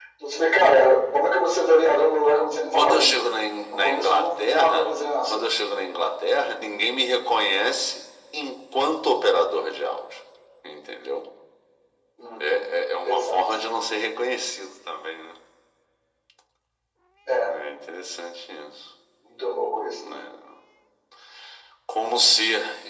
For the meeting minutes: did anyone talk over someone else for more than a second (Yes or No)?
Yes